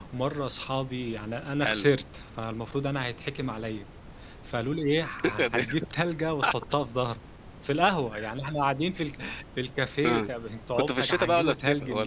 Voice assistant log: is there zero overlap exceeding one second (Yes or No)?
No